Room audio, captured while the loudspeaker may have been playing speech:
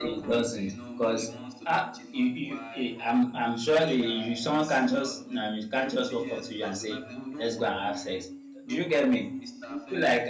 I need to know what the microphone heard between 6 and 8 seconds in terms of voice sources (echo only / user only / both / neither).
both